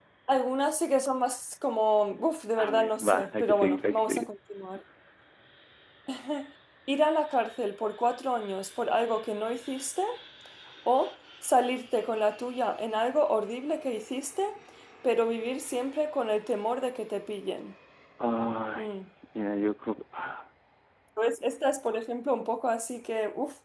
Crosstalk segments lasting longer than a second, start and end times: 2.6-4.3

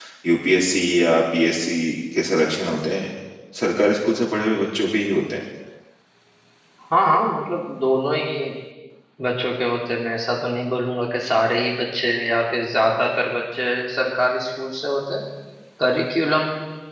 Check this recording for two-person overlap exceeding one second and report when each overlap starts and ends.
none

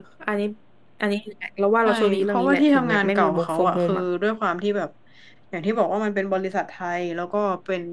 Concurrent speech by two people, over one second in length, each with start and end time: 1.8-4.0

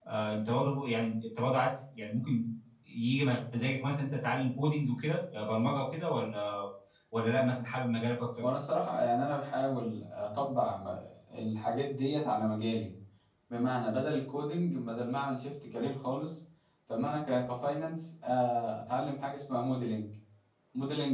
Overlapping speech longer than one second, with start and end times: none

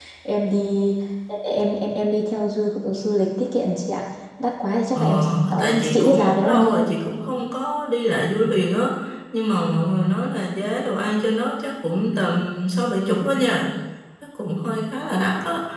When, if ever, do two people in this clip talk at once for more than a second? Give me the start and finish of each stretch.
5.0-6.8

